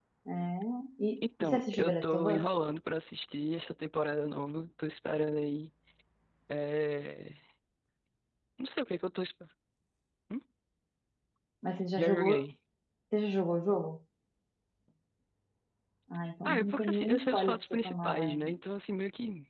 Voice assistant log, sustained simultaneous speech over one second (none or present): present